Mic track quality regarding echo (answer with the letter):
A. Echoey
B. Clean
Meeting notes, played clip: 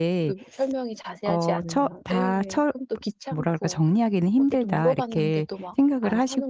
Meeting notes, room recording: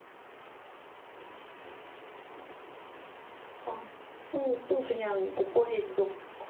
B